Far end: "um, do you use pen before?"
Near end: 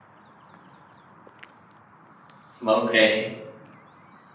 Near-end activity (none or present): present